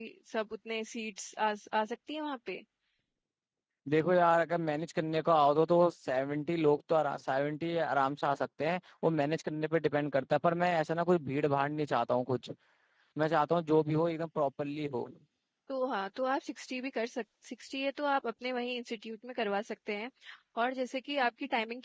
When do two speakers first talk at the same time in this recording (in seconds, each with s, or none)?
none